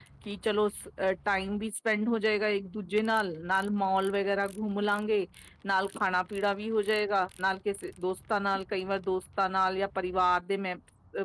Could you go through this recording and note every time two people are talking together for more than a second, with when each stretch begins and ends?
none

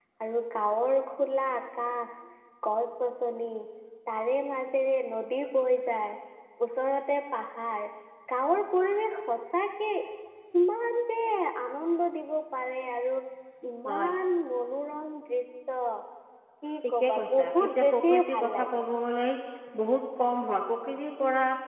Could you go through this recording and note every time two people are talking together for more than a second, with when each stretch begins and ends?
16.9-18.8

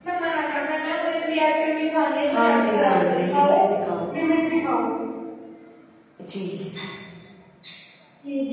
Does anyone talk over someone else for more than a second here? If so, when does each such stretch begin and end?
2.3-3.6

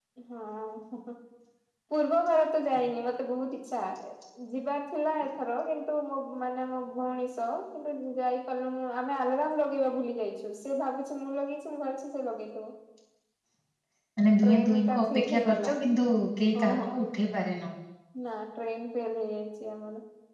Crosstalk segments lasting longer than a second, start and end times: 14.4-15.7

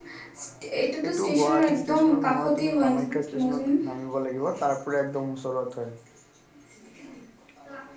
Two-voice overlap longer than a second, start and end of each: 1.1-2.9

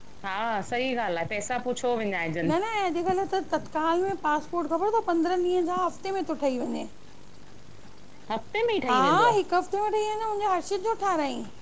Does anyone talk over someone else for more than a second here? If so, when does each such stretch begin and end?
none

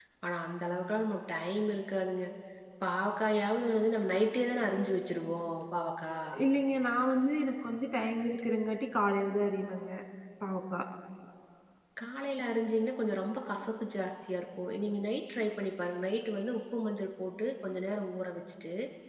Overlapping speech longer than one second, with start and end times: none

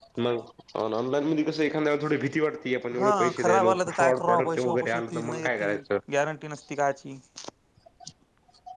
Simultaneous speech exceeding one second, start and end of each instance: 3.0-5.8

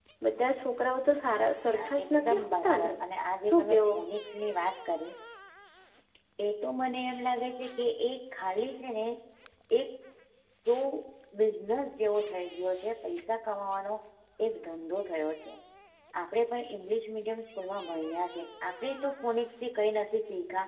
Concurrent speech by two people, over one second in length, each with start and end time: 1.7-2.9

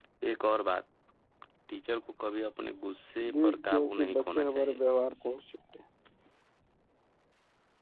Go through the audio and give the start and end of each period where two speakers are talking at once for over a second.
3.3-4.8

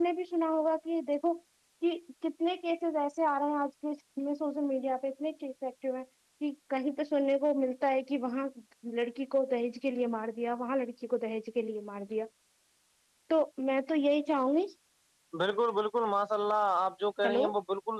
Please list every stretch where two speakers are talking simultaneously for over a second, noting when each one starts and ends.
none

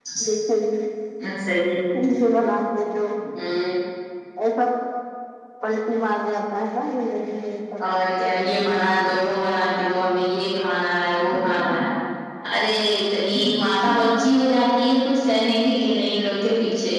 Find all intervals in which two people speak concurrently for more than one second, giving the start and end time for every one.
none

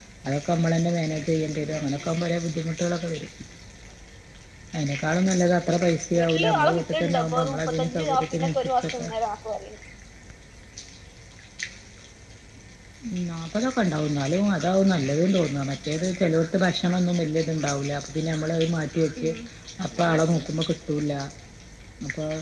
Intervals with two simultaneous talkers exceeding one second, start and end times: 6.2-9.1

